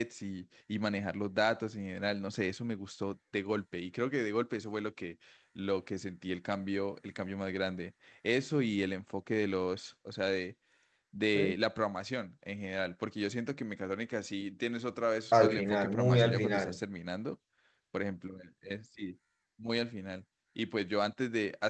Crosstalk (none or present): present